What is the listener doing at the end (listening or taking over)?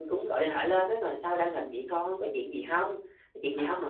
listening